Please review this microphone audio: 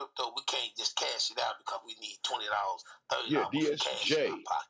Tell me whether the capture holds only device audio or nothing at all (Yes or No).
No